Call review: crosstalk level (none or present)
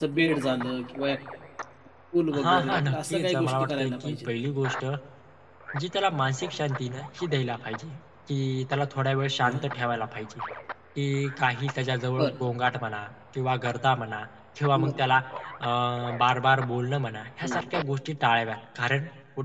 present